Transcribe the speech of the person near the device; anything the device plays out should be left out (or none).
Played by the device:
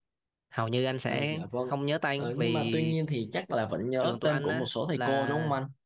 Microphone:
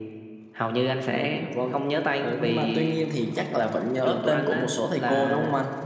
none